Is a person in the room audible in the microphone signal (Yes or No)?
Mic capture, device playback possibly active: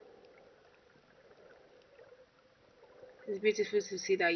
Yes